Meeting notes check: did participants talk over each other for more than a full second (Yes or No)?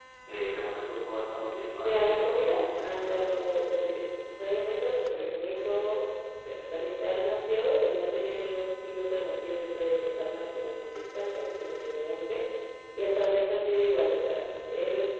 Yes